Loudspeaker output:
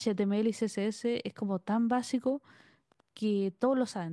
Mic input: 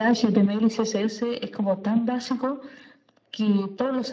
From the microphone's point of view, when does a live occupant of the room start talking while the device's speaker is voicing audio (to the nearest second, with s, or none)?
none